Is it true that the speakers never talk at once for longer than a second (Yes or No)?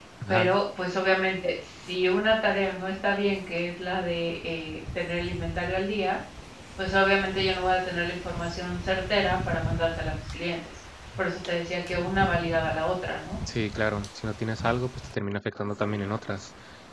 Yes